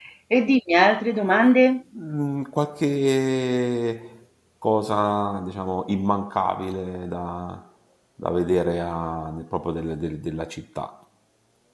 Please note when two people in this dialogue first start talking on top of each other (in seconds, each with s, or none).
none